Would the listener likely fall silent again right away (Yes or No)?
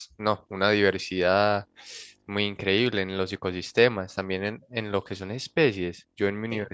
Yes